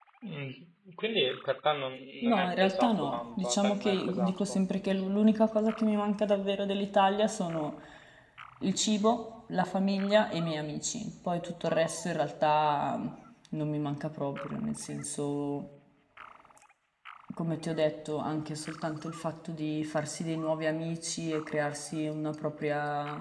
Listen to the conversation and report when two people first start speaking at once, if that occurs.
2.2 s

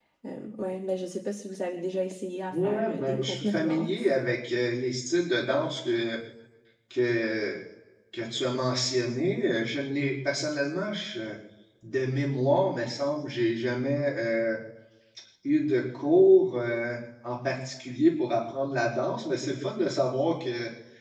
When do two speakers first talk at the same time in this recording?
2.5 s

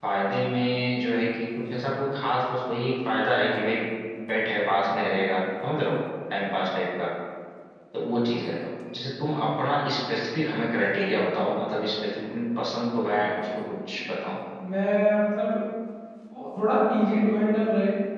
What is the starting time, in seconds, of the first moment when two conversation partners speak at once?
none

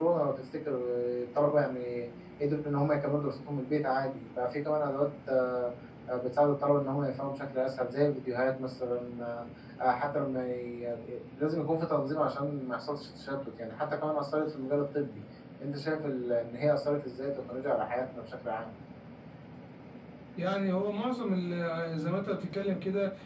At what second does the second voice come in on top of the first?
none

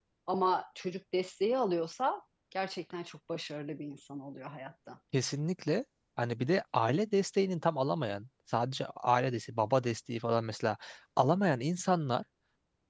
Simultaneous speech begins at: none

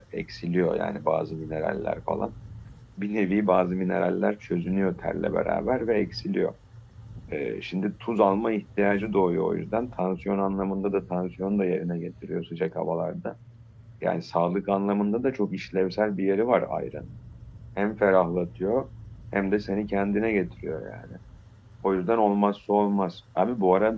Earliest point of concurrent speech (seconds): none

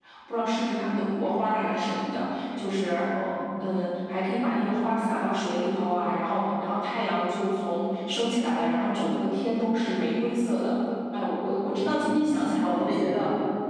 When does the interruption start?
11.7 s

